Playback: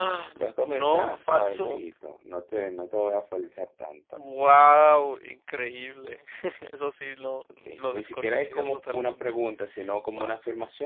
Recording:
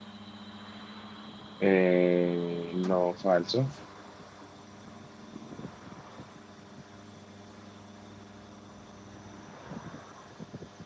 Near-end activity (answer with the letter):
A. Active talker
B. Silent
A